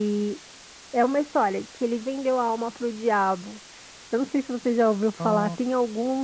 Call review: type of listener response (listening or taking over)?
listening